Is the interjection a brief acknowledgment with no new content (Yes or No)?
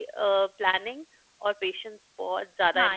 No